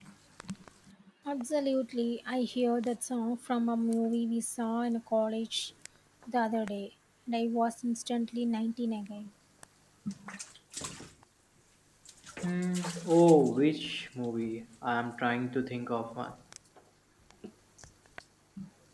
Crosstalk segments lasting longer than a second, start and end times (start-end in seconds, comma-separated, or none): none